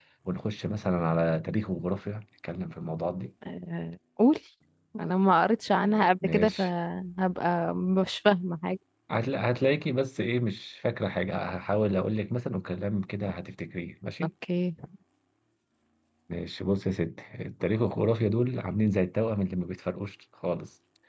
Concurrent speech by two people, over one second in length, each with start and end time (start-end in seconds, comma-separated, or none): none